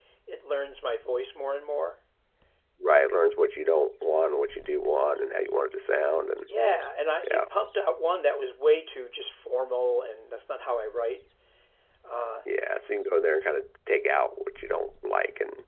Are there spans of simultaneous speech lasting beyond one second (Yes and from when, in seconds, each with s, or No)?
No